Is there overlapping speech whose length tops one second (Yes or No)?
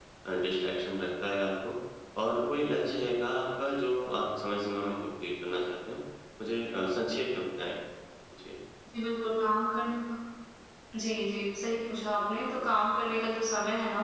No